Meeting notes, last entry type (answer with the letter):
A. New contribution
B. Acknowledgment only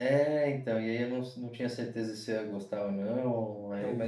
B